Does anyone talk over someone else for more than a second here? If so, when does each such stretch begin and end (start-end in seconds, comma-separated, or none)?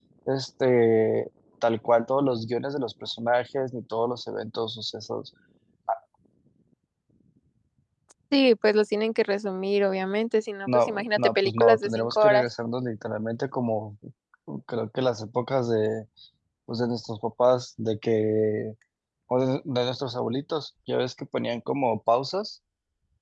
10.7-12.4